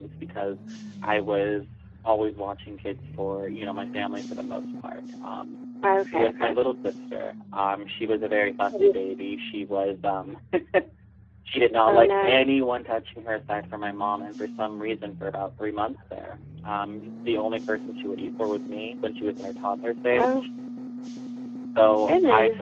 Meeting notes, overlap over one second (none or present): none